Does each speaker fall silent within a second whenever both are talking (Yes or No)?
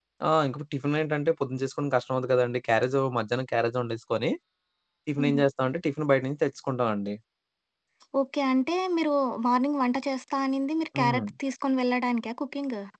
Yes